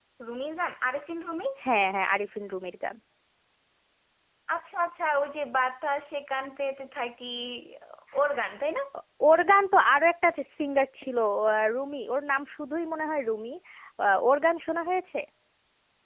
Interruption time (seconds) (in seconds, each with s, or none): none